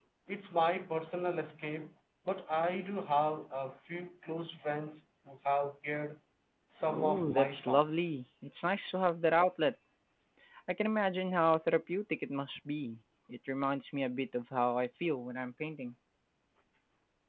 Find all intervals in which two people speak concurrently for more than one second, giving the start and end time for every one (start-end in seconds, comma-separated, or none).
6.9-8.1